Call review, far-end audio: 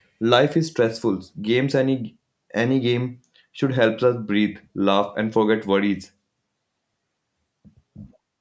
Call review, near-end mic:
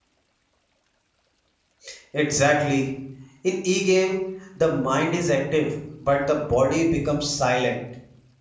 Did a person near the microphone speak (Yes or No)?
Yes